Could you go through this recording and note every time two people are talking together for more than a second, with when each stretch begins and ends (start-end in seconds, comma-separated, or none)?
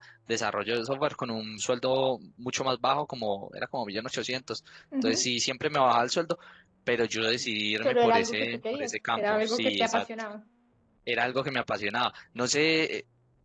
7.8-10.0